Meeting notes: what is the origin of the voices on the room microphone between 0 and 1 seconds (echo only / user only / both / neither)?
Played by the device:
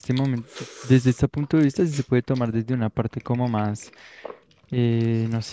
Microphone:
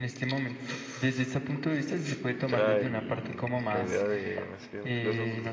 echo only